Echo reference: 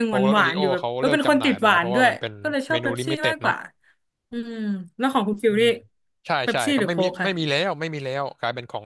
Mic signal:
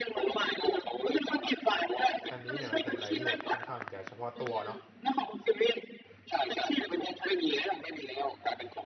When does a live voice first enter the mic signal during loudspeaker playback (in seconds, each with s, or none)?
2.3 s